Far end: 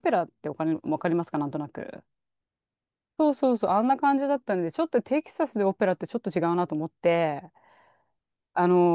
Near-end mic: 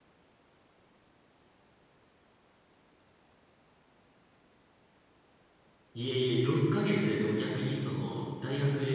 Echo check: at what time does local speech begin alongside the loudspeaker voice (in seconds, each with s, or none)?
5.9 s